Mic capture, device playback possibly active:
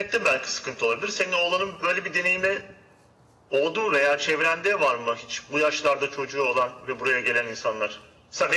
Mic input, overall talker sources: echo only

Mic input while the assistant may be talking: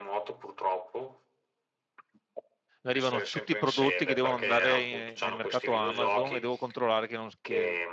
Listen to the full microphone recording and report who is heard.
both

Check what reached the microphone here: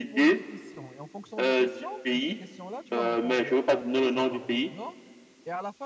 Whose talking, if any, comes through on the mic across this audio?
both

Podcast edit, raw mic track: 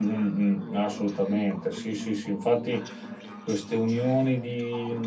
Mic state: both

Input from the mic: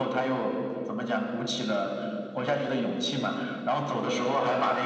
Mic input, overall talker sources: echo only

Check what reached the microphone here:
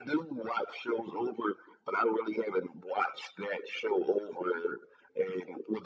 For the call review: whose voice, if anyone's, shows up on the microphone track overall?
echo only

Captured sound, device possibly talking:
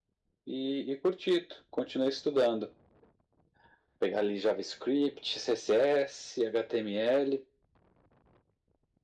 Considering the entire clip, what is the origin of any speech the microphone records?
echo only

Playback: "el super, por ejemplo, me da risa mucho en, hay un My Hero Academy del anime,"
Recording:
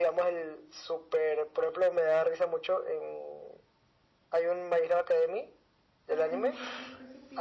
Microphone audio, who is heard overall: both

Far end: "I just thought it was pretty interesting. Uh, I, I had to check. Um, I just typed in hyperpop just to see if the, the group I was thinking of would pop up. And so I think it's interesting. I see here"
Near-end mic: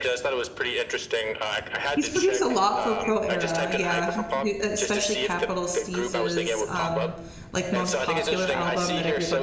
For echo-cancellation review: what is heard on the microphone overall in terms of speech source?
both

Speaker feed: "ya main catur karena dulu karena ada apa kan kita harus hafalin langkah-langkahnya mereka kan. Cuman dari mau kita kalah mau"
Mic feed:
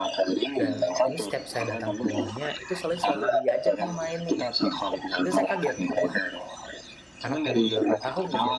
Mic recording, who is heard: both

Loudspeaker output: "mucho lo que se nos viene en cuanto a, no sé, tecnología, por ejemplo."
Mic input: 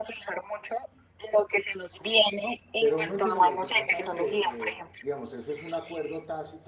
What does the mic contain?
both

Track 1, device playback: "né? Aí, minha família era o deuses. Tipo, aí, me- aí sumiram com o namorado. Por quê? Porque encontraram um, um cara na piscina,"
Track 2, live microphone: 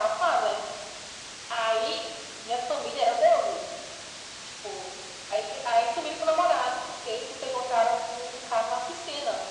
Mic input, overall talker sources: echo only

